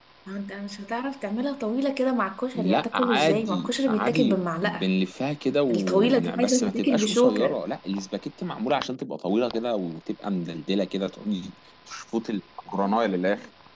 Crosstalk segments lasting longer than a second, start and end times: 2.6-4.8, 5.7-7.6

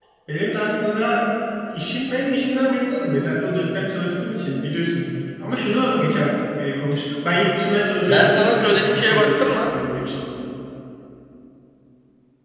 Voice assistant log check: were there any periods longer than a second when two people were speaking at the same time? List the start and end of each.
8.1-9.7

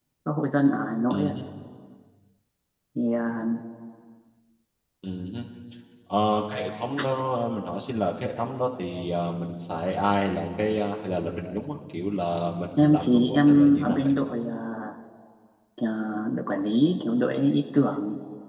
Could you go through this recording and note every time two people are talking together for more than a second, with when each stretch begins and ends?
12.8-14.1

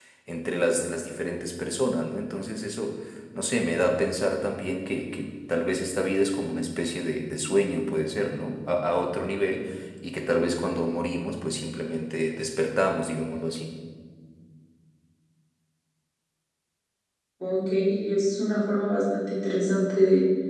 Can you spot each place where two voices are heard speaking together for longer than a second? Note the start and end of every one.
none

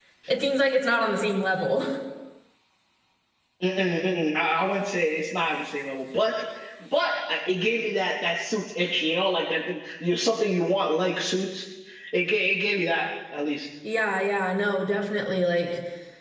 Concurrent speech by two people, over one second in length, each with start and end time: none

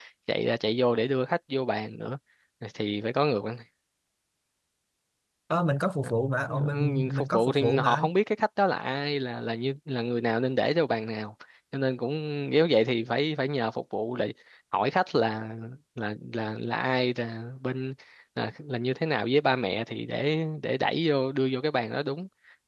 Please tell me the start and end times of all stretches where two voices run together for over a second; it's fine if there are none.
6.5-8.1

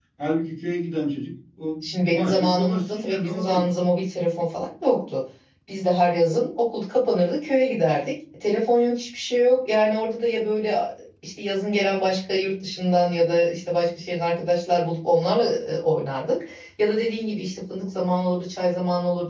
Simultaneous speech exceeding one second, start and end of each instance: 2.0-3.6

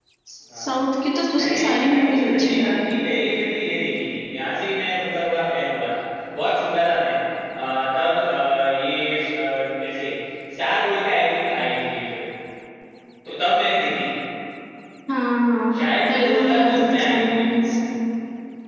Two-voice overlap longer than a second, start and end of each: 1.3-2.7, 15.8-17.7

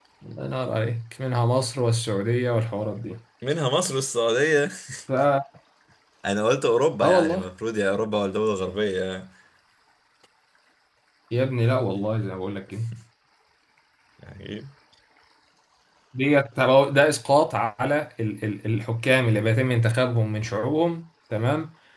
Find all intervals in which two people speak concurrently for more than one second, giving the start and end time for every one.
none

